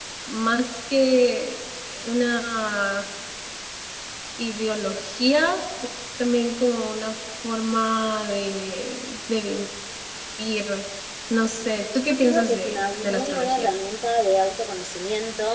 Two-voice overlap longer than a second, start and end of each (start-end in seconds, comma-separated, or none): 12.1-13.8